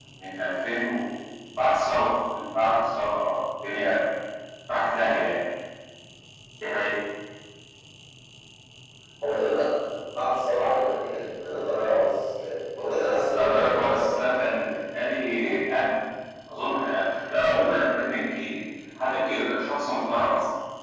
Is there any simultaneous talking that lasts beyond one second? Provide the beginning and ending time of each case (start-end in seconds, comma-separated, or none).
13.3-14.6